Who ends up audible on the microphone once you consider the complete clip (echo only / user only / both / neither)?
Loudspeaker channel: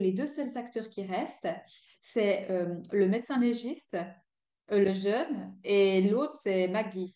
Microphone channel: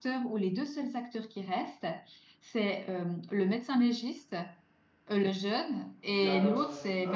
both